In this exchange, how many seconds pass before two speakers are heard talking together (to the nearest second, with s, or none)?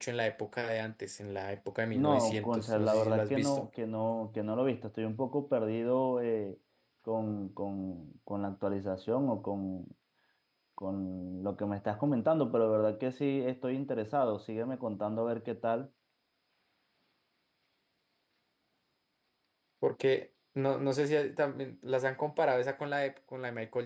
2 s